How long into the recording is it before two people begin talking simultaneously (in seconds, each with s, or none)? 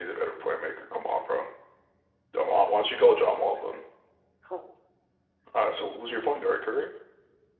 2.6 s